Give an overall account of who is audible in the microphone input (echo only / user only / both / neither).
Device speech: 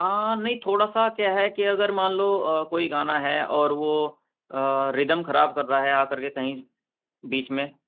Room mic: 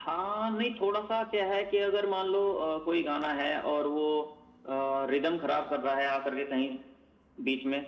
echo only